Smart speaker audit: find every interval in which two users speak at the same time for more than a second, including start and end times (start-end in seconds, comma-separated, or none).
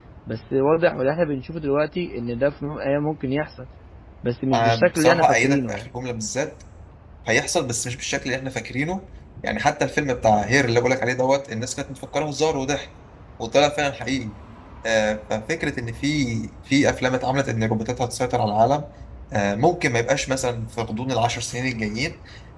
4.5-5.9